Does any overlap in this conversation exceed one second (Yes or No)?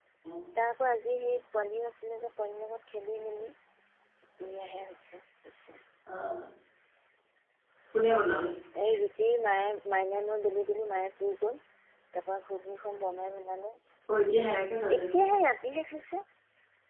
No